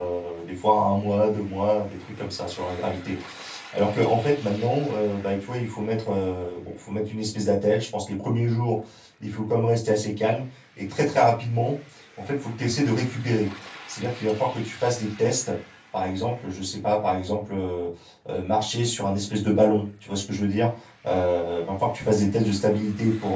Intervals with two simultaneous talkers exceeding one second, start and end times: none

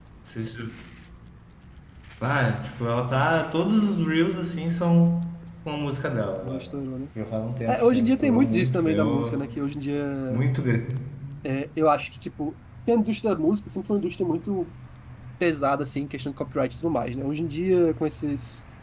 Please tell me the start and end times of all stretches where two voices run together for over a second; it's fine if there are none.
7.7-9.4

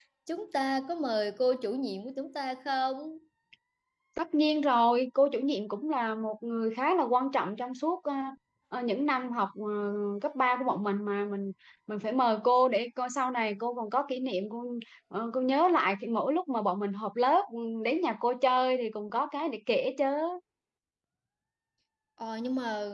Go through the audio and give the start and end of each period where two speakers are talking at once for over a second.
none

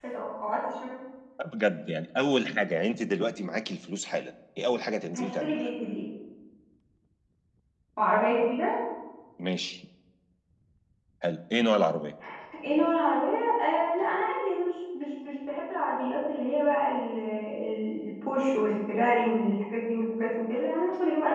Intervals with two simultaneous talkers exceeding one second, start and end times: none

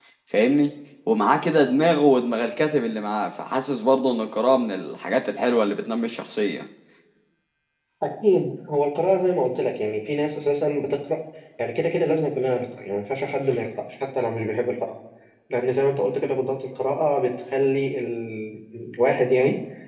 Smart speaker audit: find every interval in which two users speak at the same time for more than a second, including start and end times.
none

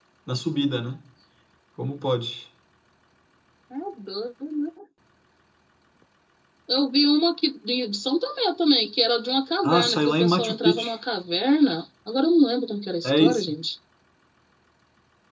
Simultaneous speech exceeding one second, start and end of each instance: 9.6-10.9

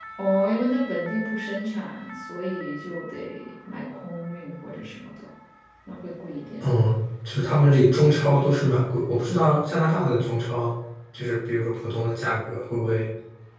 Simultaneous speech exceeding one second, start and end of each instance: none

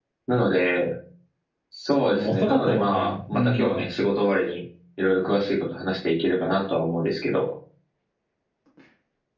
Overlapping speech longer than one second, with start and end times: 2.1-3.8

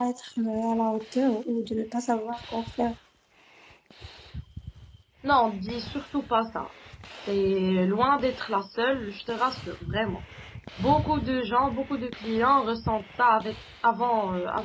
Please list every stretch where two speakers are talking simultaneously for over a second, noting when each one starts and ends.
none

